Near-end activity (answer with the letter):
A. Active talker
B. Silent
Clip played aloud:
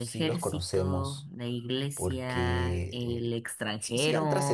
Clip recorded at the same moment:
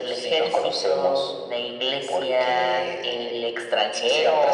B